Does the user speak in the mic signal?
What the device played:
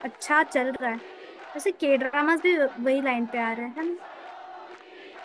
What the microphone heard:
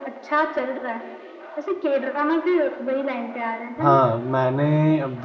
Yes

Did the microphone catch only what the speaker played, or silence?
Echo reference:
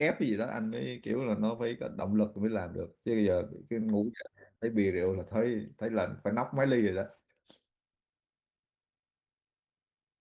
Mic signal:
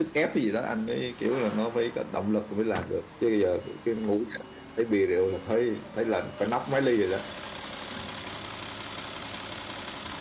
Yes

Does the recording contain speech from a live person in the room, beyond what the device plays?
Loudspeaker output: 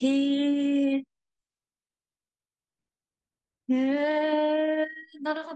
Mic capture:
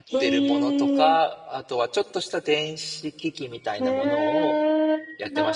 Yes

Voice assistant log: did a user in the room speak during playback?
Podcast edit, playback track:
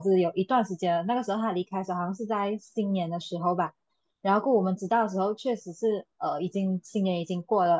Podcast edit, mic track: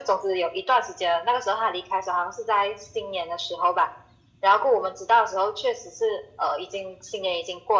No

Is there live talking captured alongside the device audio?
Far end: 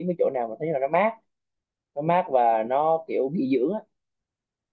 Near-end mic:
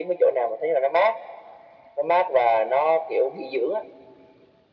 No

